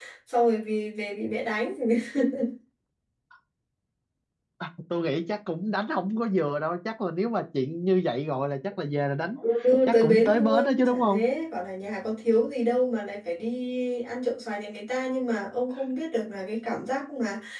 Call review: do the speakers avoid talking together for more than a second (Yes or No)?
No